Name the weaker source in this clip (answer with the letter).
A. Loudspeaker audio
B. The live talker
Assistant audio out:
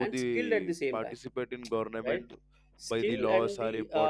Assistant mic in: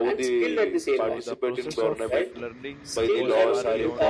B